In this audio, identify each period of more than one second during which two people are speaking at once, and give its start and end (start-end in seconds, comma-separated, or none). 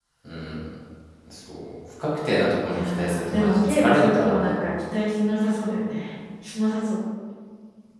2.7-4.6